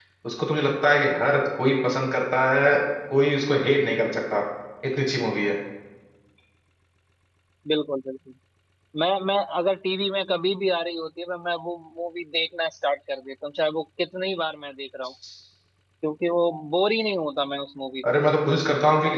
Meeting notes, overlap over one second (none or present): none